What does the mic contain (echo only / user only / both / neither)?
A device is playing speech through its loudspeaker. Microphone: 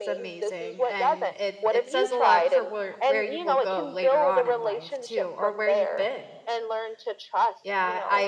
both